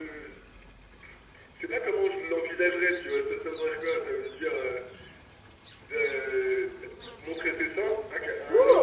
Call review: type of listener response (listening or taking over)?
taking over